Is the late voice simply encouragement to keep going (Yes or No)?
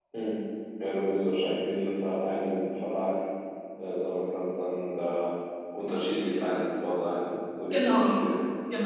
No